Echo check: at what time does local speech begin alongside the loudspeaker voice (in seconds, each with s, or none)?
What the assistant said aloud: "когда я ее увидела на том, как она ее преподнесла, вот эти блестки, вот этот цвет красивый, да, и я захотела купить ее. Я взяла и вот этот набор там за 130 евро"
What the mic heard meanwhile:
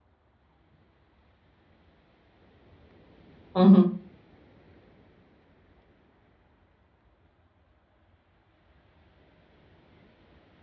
3.5 s